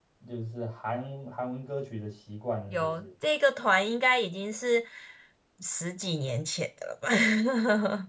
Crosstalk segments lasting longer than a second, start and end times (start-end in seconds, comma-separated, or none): none